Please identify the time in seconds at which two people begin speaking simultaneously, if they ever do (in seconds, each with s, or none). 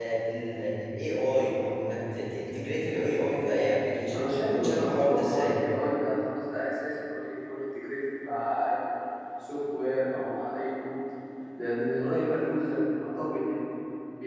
4.1 s